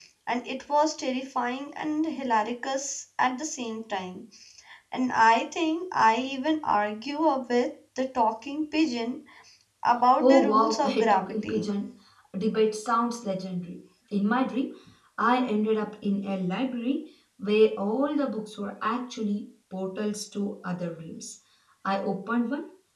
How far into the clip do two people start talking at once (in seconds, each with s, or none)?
10.2 s